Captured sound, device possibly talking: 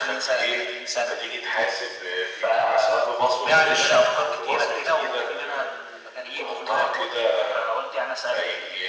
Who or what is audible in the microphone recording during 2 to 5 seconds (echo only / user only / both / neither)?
echo only